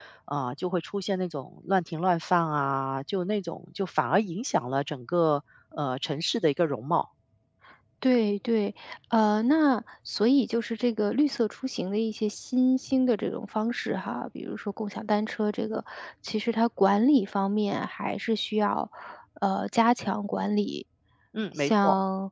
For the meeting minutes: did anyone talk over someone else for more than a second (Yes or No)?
No